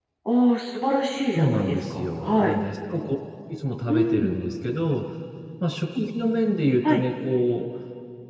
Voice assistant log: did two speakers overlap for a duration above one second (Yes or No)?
Yes